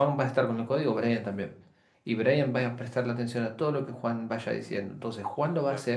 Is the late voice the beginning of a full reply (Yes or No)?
No